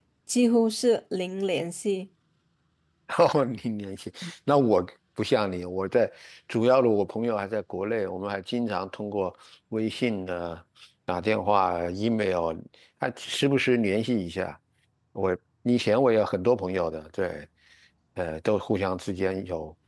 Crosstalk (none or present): none